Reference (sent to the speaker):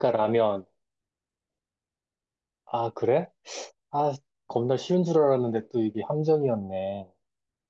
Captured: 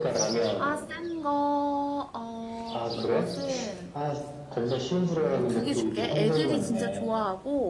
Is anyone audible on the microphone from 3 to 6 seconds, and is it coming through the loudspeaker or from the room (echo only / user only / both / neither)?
both